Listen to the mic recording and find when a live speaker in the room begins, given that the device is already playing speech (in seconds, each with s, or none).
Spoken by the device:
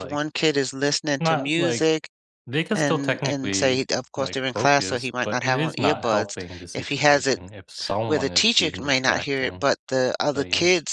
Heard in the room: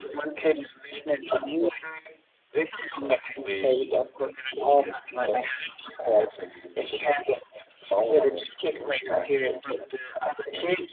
none